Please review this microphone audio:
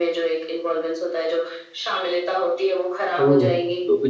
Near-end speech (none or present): present